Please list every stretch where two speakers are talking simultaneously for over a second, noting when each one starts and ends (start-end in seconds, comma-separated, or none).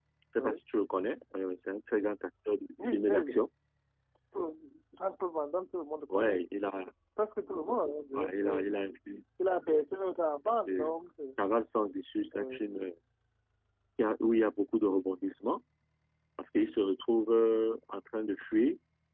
none